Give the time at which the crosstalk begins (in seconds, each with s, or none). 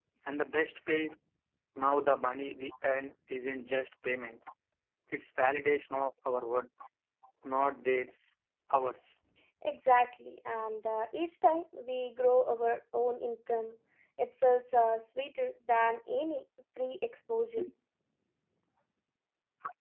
none